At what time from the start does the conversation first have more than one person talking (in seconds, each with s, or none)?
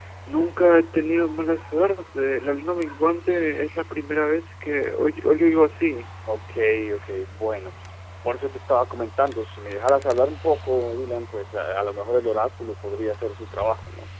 none